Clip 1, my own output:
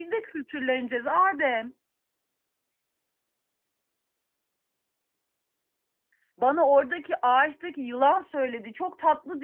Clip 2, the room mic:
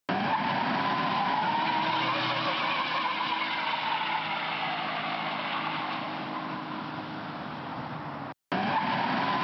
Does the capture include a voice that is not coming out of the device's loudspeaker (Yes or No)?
No